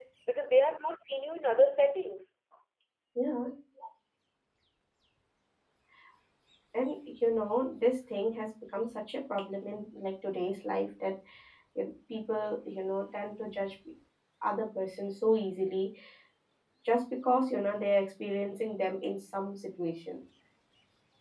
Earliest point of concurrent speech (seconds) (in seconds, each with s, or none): none